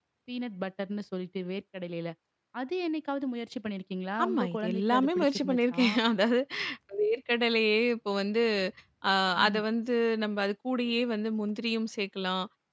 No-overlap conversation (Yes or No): No